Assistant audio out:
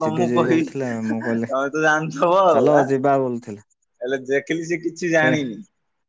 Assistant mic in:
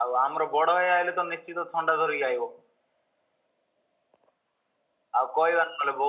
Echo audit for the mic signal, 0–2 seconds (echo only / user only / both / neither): user only